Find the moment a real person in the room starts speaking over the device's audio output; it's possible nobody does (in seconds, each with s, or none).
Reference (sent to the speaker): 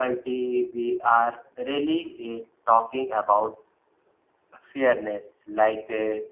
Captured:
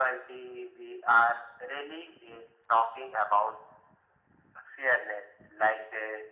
none